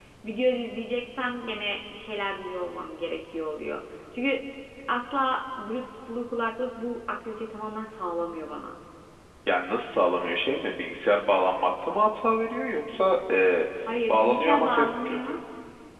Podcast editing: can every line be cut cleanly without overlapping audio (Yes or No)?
No